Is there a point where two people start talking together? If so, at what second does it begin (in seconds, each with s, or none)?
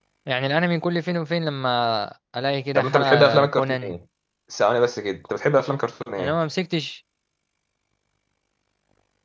2.8 s